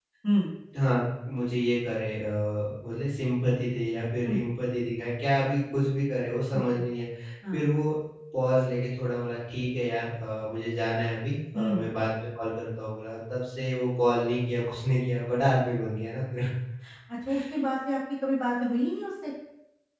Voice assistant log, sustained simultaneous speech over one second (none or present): none